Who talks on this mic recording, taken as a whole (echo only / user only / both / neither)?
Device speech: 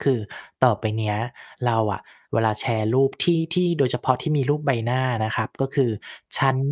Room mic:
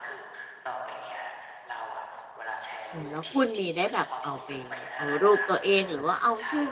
both